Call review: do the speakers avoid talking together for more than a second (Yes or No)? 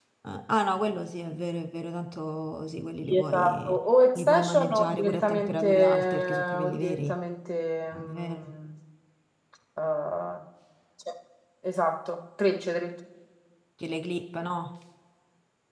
No